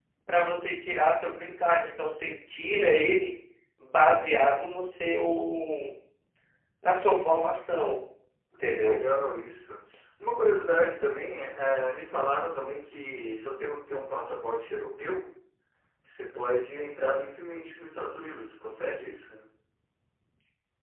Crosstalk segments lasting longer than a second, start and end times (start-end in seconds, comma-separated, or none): none